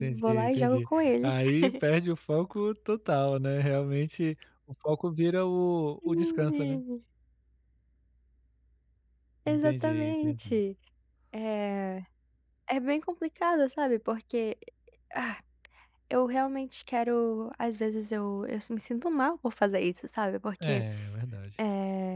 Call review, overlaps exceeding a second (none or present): present